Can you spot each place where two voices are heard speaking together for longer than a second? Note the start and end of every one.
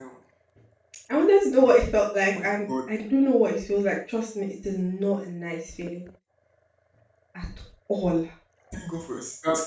none

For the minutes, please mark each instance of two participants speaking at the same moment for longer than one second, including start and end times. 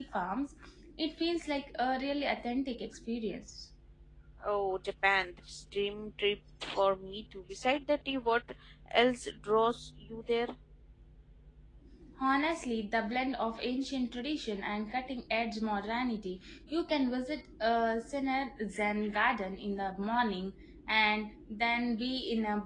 none

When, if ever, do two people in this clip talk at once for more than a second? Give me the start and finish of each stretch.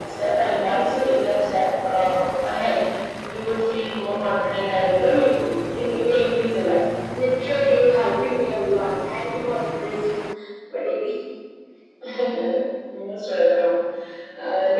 none

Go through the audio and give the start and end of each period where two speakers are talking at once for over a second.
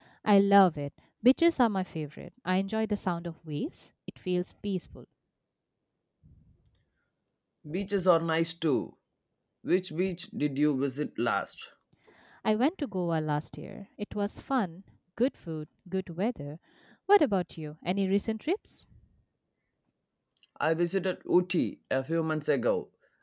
none

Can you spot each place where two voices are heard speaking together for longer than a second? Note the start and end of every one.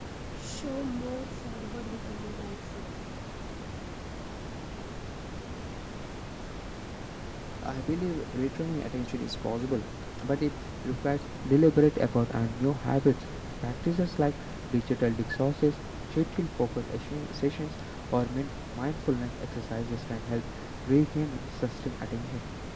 none

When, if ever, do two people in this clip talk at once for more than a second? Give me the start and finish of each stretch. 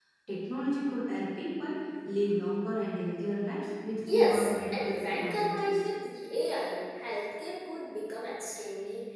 4.1-5.8

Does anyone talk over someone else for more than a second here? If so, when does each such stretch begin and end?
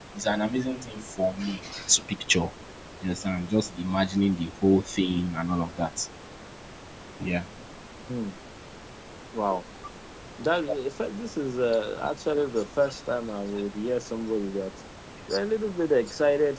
none

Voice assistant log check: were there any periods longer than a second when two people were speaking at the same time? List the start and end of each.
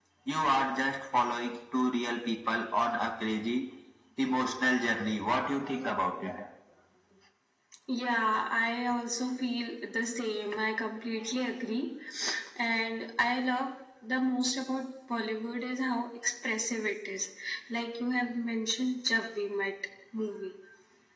none

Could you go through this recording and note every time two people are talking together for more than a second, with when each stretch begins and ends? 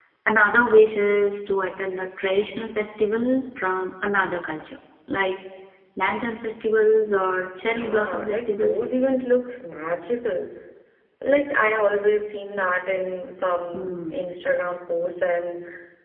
7.7-8.9

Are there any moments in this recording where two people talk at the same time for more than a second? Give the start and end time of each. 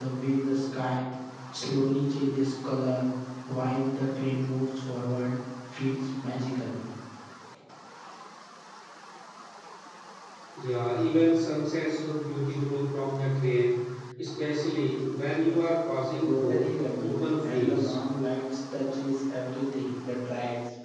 16.2-18.0

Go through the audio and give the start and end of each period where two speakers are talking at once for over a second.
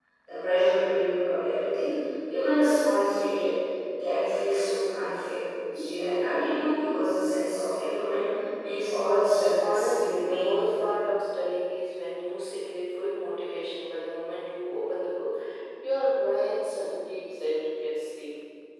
9.6-10.8

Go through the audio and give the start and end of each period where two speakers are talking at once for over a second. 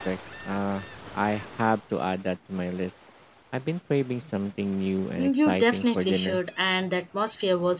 5.2-6.4

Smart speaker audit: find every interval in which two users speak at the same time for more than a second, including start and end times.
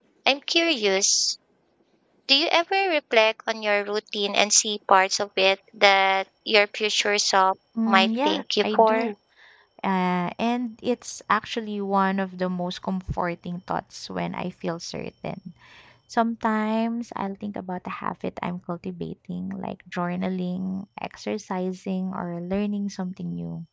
7.9-9.1

